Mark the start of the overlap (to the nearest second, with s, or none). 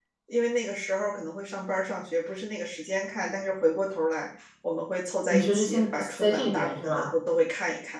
5 s